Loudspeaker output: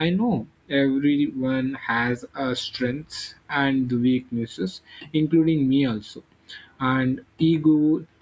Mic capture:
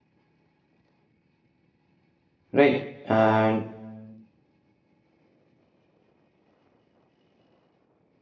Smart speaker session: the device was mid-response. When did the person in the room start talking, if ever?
2.5 s

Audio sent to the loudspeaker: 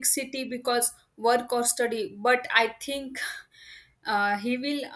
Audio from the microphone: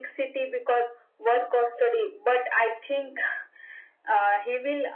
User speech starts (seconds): none

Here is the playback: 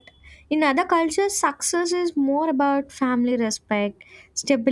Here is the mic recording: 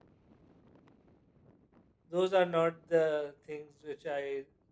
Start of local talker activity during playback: 2.1 s

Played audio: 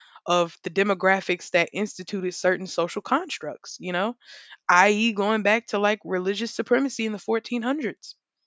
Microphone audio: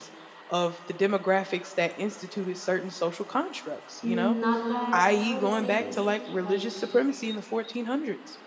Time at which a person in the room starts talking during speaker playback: 4.0 s

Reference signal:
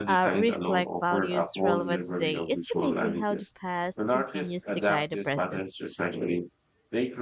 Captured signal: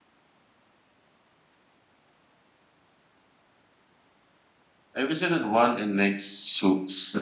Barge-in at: 4.9 s

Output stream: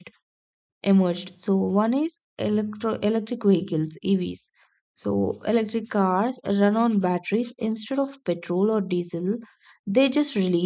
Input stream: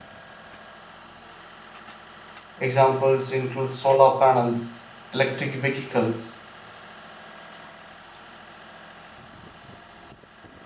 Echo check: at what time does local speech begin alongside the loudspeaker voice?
2.6 s

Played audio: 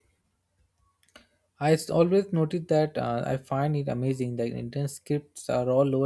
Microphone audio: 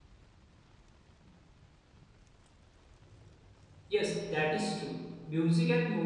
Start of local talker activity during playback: 3.9 s

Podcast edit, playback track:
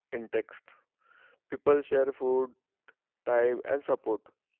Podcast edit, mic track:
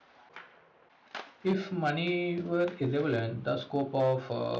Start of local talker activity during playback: 1.4 s

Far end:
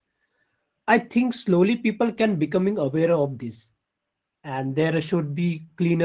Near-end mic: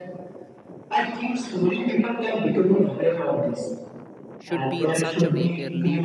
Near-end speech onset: 4.4 s

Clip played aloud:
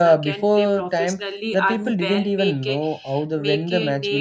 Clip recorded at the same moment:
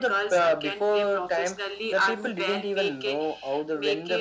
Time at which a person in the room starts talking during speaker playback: none

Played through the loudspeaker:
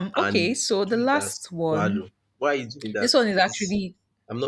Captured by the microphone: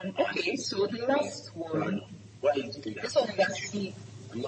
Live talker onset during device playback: none

